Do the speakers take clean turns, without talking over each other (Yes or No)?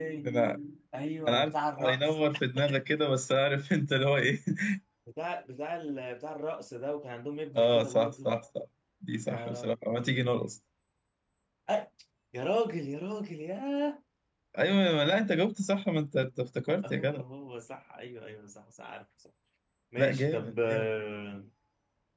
No